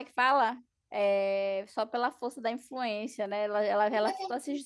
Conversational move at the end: taking over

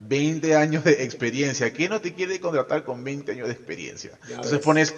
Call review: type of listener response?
listening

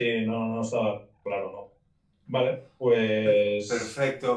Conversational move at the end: taking over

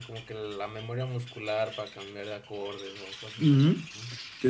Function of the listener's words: taking over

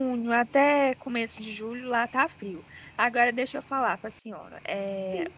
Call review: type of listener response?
listening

